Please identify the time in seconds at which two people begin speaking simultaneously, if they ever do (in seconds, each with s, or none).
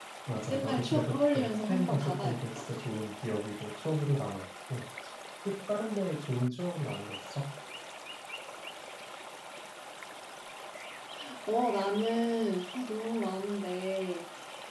0.5 s